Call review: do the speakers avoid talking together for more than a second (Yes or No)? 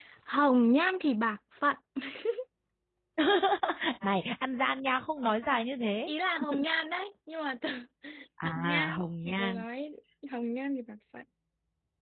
No